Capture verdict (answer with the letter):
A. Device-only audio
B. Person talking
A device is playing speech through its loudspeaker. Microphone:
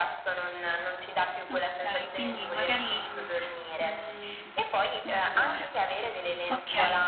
B